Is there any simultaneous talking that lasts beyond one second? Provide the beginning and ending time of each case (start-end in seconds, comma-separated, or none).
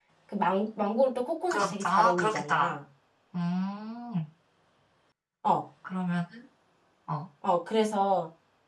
1.5-2.7